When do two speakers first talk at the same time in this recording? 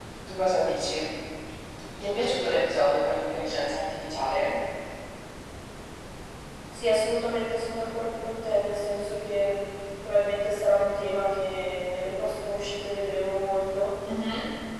none

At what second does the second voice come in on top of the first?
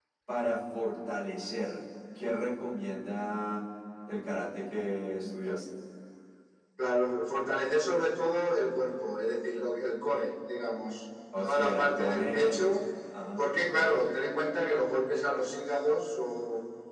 11.3 s

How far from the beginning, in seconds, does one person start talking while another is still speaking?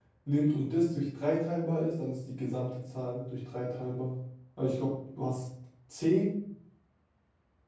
none

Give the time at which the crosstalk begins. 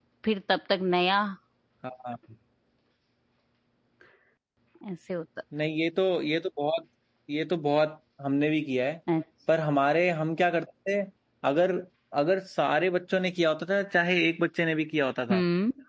none

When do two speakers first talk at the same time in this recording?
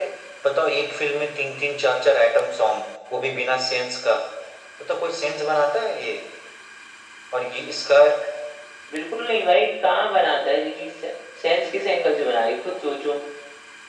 none

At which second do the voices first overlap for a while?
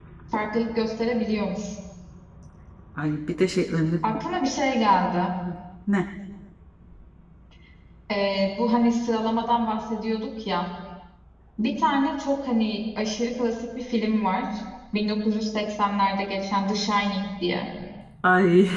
none

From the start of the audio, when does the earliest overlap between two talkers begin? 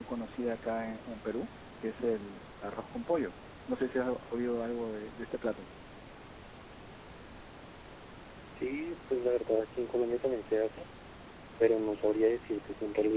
none

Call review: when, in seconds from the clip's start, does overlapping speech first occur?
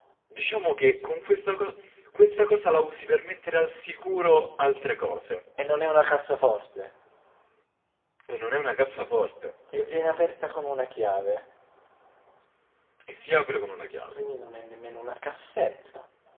none

